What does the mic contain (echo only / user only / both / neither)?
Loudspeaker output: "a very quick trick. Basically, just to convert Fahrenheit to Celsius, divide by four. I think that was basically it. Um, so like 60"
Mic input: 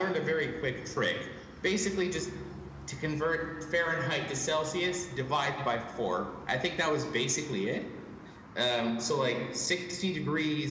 echo only